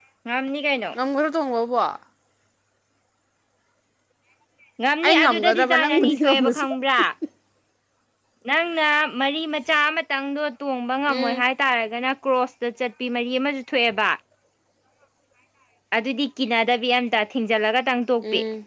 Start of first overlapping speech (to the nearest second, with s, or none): 5 s